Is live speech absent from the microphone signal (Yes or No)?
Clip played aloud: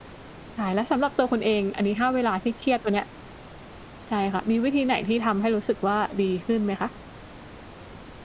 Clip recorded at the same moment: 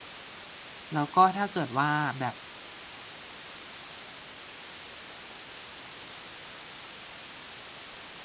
No